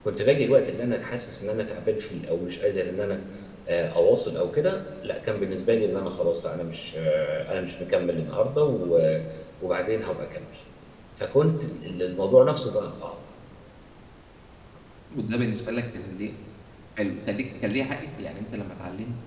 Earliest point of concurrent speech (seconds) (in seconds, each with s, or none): none